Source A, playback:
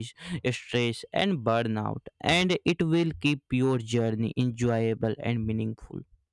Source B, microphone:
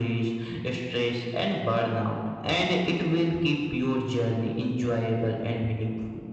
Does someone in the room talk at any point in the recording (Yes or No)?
No